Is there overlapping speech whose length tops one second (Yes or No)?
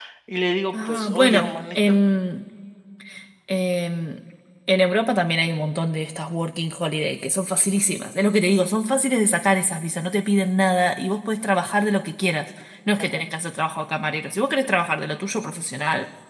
Yes